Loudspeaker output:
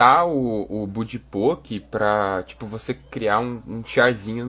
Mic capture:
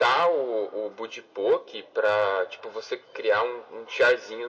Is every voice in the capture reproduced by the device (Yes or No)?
Yes